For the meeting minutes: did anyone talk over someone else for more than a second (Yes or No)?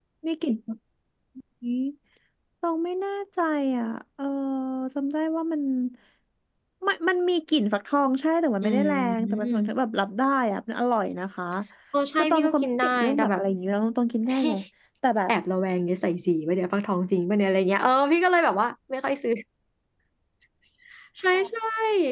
Yes